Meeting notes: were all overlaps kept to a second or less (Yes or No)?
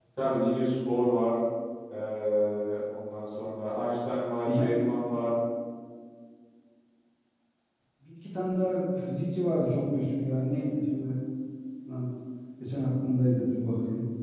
Yes